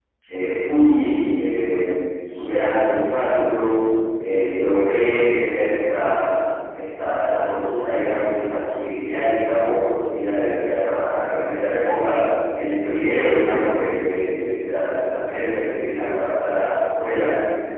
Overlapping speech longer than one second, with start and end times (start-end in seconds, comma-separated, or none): none